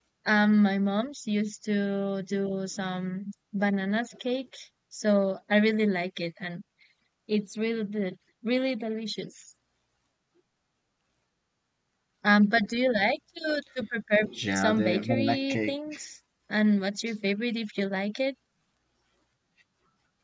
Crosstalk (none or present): present